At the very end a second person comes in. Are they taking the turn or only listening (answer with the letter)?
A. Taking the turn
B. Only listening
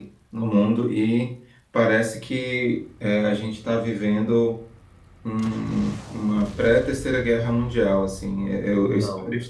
B